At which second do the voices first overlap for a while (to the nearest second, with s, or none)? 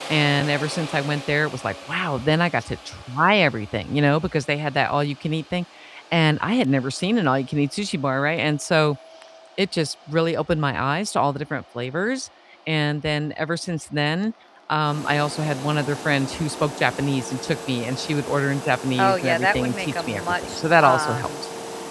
19 s